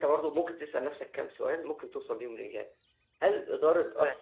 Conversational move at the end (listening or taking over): listening